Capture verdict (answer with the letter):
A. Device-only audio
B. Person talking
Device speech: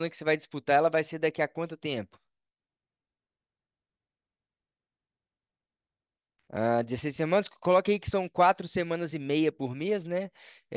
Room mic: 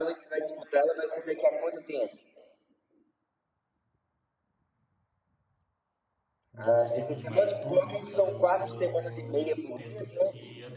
B